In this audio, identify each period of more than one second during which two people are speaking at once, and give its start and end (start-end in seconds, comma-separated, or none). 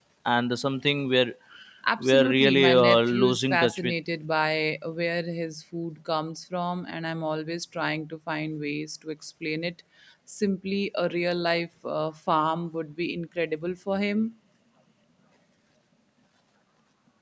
2.0-3.9